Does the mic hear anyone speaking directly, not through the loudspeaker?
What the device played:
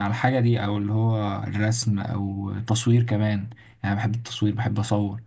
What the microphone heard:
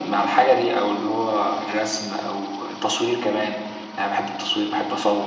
No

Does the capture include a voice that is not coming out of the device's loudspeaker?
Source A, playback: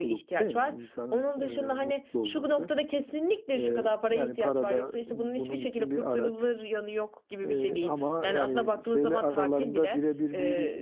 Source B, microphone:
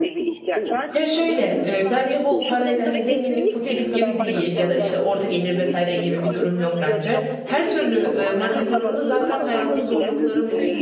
Yes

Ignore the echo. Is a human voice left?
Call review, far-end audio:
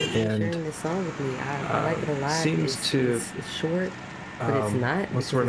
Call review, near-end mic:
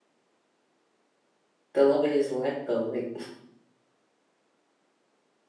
Yes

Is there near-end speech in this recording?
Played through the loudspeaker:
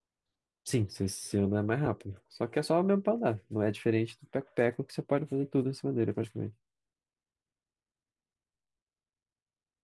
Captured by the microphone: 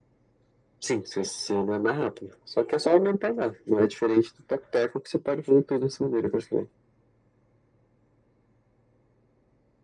No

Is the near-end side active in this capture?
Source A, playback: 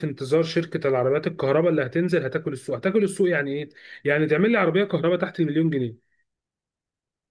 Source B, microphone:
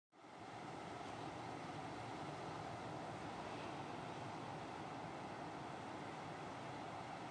No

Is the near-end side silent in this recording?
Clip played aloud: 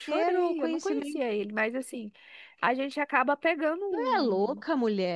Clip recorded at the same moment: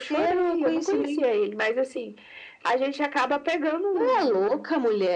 Yes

